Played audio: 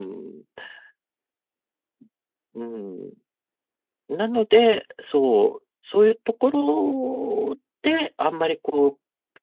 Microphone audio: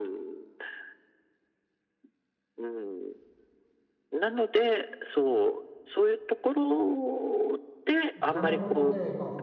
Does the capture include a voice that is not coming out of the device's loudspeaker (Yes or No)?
Yes